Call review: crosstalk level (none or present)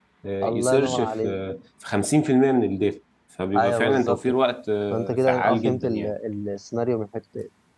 present